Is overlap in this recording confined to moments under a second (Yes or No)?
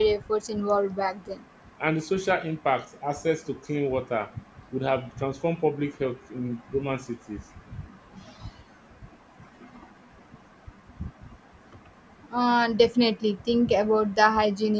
Yes